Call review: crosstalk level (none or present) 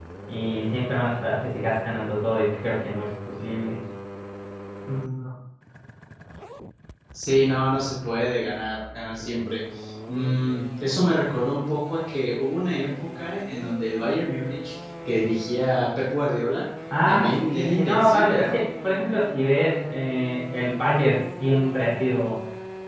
present